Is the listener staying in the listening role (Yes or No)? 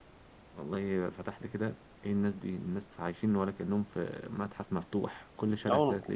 Yes